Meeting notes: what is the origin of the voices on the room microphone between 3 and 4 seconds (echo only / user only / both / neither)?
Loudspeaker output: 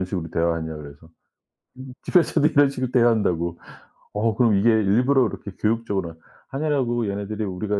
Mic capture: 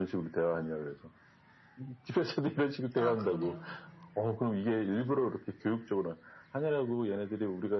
both